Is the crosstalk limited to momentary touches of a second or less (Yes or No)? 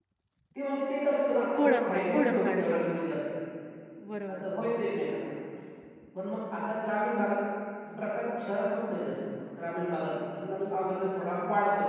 No